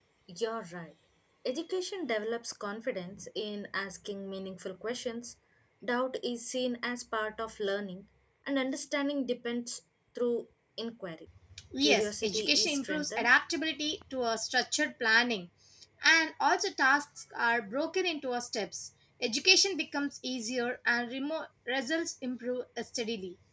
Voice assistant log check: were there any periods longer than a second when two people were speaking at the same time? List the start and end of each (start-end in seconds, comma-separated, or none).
11.8-13.3